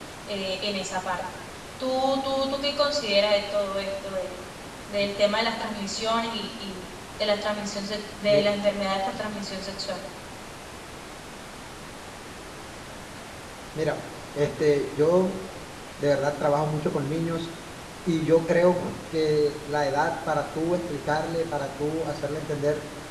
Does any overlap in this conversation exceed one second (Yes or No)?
No